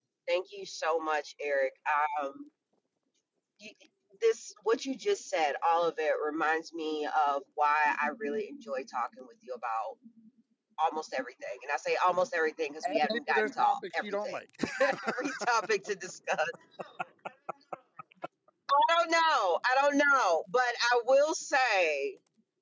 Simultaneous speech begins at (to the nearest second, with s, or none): 13 s